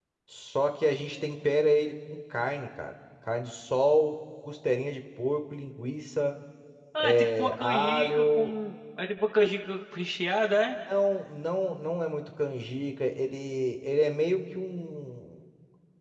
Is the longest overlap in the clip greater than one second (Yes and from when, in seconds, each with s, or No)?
Yes, from 7.0 s